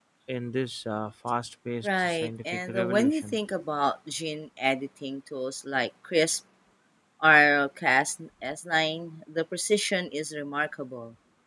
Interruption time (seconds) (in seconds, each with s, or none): 1.8 s